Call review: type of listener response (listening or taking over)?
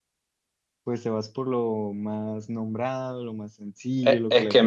taking over